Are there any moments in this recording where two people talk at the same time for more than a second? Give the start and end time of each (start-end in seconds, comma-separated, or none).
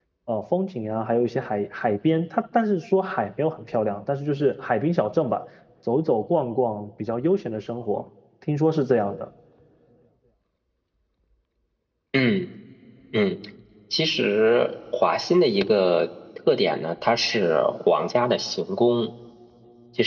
none